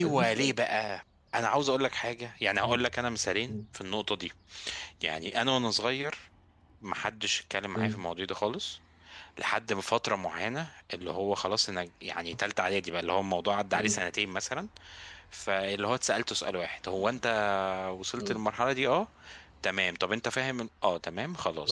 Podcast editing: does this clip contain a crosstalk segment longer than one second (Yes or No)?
No